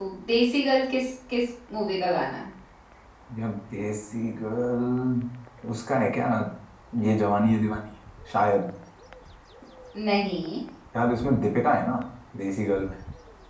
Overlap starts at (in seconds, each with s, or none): none